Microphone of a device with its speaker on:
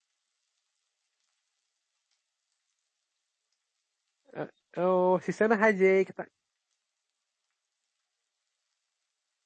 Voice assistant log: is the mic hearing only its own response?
No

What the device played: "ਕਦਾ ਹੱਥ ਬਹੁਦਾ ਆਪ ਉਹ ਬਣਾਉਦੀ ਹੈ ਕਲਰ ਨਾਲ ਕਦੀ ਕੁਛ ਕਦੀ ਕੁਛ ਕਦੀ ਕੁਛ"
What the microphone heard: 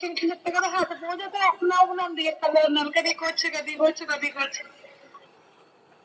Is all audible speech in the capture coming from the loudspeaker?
Yes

